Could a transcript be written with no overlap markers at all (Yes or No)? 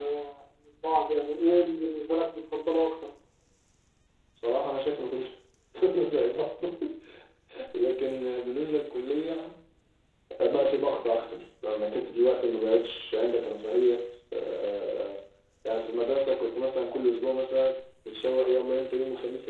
Yes